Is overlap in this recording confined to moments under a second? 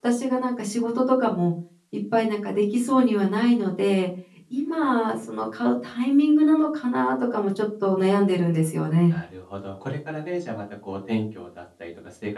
Yes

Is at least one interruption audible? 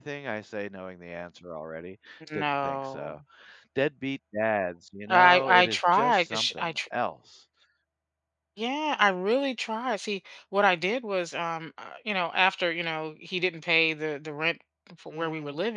Yes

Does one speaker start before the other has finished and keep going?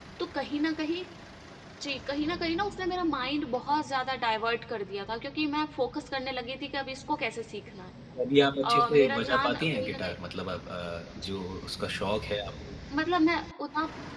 Yes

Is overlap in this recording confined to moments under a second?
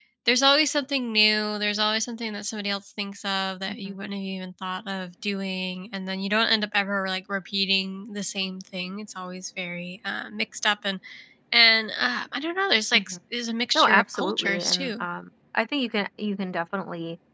No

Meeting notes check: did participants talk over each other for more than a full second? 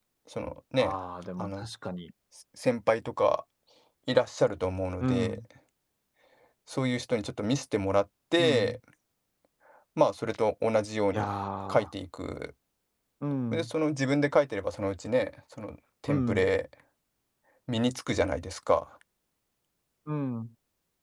No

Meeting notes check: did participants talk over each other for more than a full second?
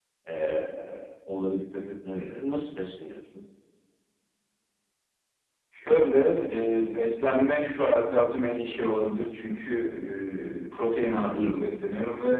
No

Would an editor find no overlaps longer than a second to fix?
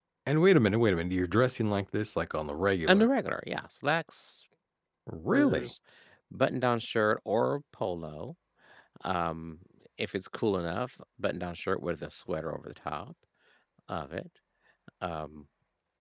Yes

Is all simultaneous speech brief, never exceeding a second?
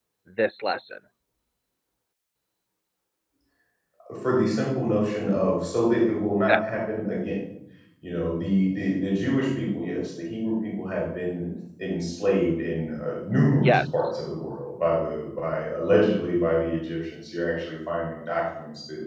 Yes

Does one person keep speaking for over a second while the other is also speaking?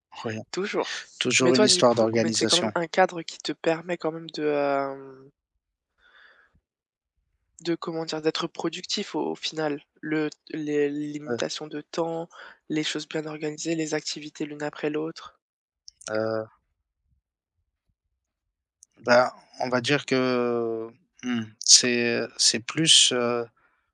Yes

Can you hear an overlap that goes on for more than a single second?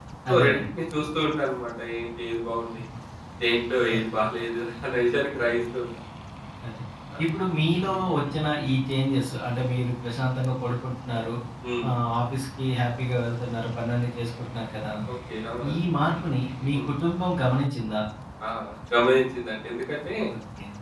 No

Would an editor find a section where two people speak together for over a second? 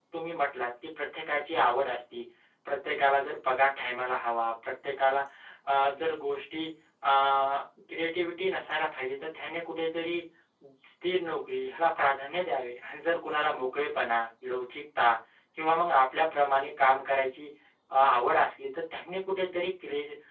No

